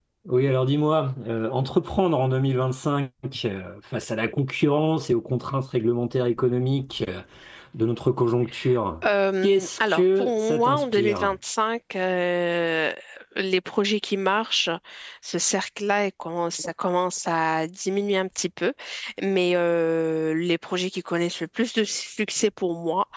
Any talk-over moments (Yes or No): Yes